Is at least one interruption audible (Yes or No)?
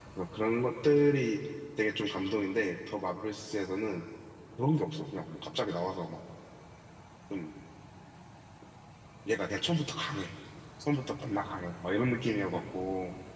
No